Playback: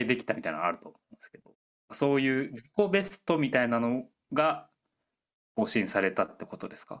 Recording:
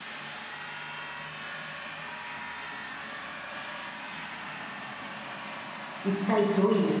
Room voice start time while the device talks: 6.0 s

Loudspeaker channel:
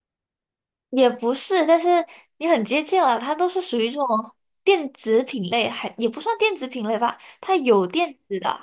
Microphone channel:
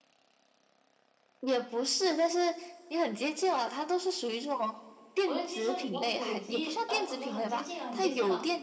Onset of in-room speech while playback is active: 5.2 s

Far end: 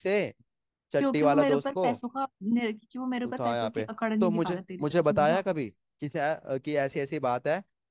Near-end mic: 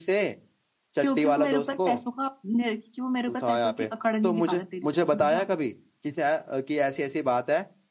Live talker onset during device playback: none

